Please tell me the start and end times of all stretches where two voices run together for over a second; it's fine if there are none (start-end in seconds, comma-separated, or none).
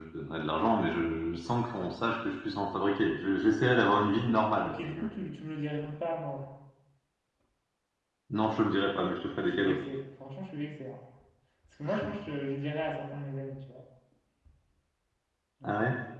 none